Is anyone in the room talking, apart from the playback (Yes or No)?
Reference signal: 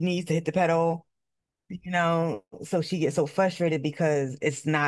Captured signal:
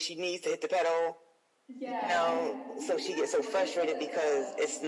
Yes